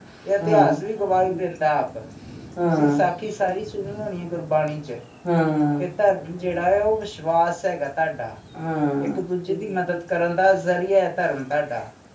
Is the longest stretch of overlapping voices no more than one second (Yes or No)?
Yes